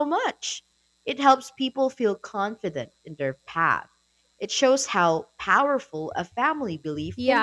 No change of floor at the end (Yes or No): No